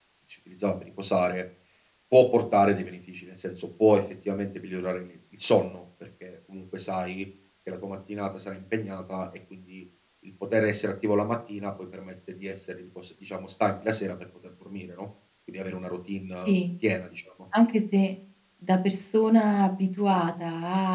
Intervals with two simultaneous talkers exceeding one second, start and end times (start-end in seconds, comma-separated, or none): none